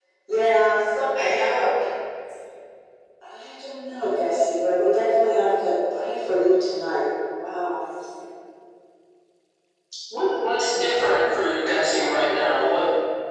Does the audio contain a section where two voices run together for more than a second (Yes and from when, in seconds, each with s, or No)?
No